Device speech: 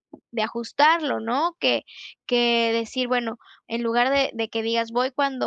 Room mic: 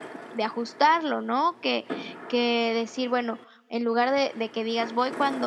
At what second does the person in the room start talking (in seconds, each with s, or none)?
none